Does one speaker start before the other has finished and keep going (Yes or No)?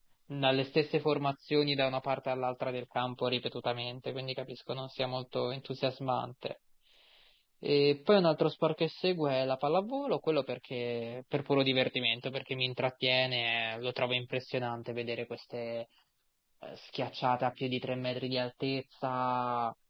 No